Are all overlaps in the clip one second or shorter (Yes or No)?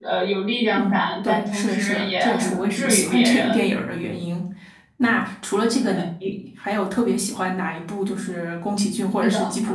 No